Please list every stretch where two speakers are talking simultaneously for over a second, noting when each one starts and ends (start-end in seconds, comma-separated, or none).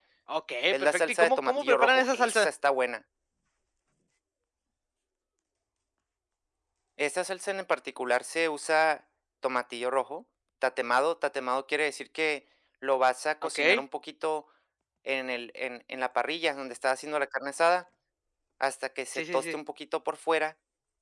0.7-2.5